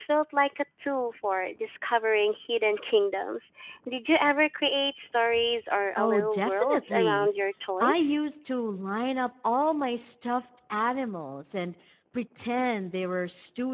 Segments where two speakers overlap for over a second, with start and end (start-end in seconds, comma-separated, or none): 6.0-7.3